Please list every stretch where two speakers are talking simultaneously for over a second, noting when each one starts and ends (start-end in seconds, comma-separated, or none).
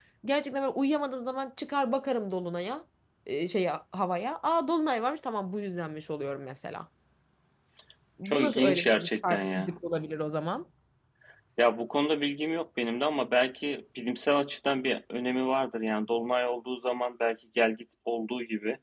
8.2-9.7